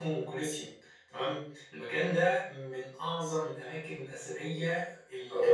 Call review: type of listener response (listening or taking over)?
listening